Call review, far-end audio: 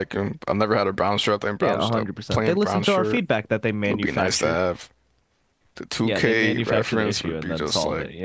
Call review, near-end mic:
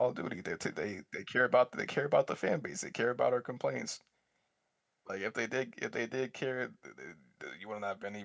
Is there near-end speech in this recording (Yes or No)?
Yes